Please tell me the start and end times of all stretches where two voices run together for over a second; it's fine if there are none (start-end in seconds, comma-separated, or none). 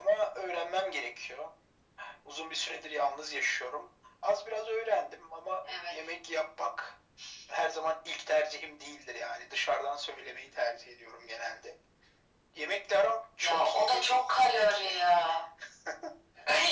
13.4-15.0